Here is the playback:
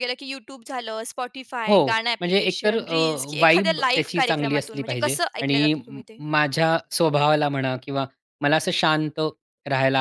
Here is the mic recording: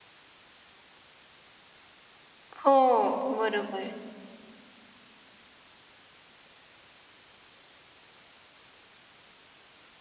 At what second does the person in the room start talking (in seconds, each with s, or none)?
2.6 s